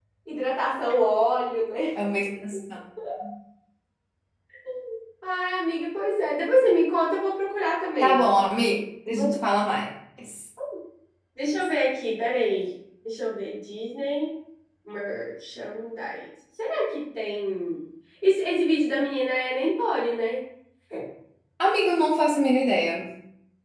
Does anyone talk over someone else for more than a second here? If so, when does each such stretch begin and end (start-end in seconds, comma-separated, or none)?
none